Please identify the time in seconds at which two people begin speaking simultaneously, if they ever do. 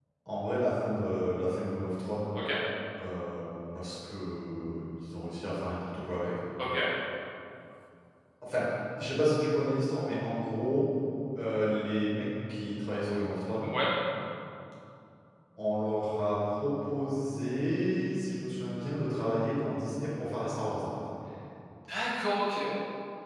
none

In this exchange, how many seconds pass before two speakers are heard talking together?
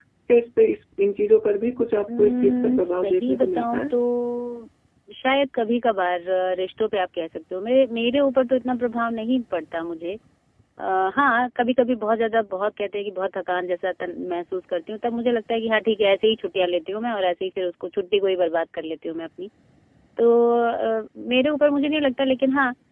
2.1 s

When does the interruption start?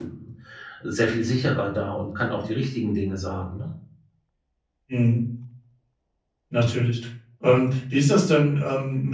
none

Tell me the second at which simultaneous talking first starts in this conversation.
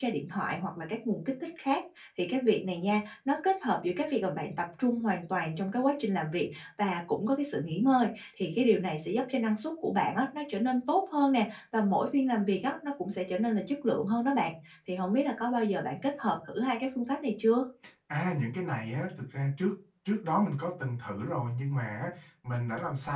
none

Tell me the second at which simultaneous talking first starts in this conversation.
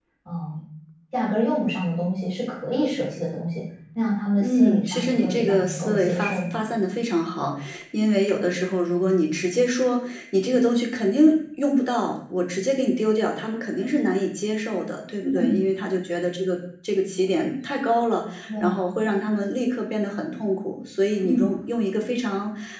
4.4 s

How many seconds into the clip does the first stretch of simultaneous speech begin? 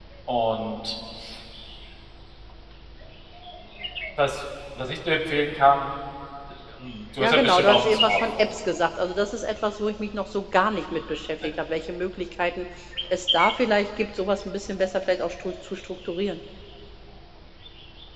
7.2 s

